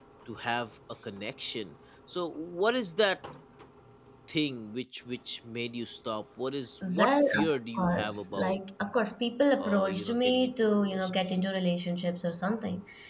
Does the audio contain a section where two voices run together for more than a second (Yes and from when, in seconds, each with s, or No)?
Yes, from 6.9 s